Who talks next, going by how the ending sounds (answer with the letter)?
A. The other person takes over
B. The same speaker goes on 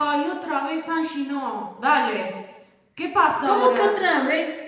A